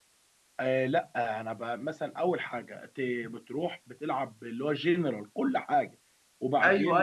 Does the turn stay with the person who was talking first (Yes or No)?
No